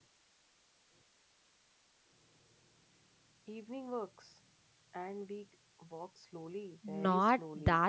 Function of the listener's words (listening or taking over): taking over